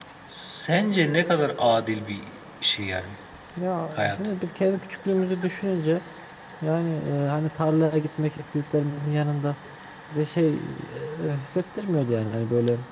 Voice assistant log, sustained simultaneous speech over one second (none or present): none